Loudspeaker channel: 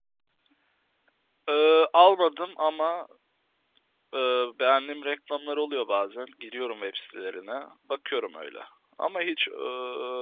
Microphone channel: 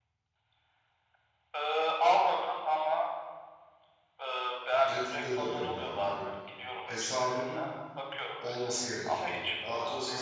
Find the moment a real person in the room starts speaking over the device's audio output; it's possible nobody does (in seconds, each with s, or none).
4.9 s